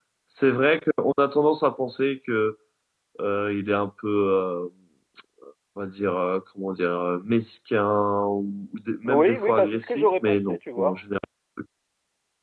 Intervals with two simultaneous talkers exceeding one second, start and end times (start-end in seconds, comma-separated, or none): 9.1-10.9